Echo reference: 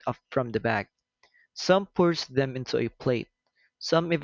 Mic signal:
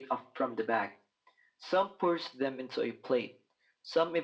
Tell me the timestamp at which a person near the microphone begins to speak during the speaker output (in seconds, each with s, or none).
none